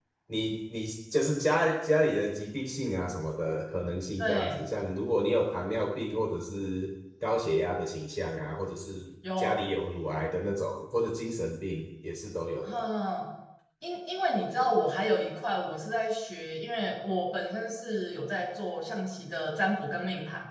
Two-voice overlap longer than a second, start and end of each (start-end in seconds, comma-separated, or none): none